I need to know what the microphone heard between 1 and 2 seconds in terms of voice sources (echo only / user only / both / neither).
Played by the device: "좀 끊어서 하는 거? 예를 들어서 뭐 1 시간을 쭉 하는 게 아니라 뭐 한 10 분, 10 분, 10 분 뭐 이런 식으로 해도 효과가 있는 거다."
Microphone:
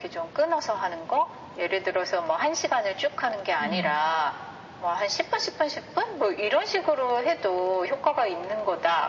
echo only